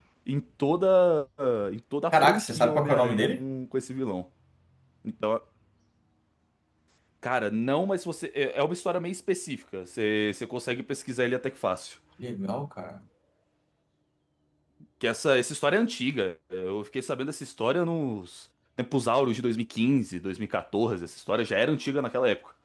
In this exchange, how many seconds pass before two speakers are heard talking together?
2.1 s

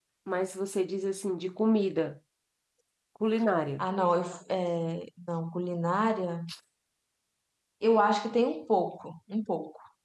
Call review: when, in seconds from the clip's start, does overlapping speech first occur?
none

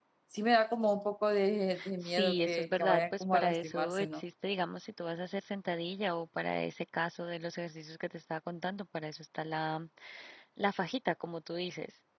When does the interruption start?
2.0 s

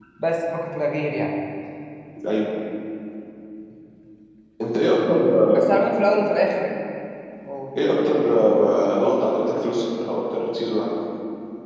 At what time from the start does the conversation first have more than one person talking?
none

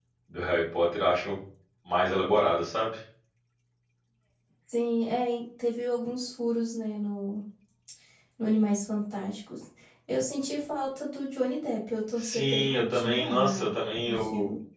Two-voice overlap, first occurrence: 12.2 s

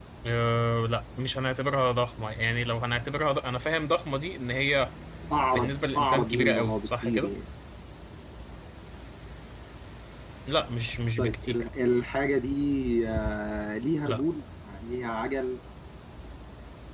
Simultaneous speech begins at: 5.5 s

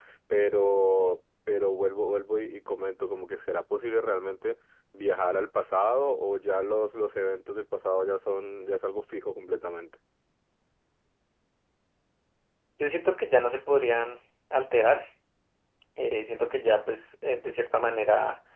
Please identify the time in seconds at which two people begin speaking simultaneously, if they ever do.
none

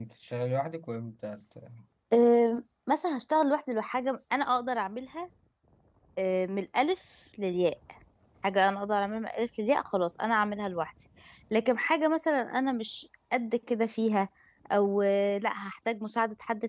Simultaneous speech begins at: none

